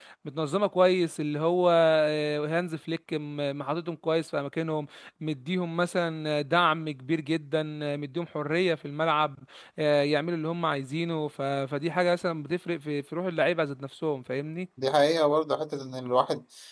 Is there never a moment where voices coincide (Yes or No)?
Yes